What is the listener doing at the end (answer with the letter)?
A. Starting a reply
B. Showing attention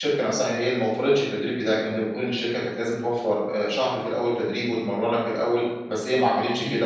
B